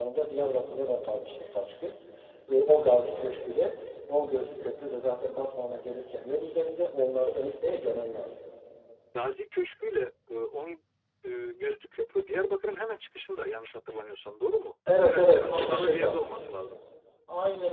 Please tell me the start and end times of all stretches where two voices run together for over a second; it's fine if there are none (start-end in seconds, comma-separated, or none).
15.0-16.2